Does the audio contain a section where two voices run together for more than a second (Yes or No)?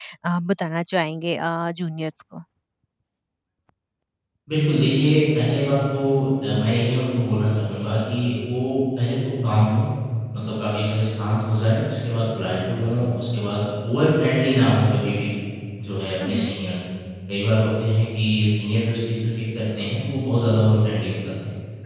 No